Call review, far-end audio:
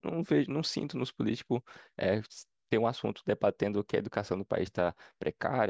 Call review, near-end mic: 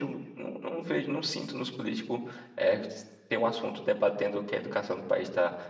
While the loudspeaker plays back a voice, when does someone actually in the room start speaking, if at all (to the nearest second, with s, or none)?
none